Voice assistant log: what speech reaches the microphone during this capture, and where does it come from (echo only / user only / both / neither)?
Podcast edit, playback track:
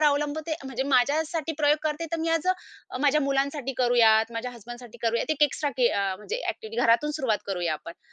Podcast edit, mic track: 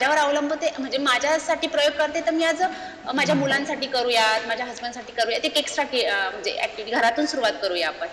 both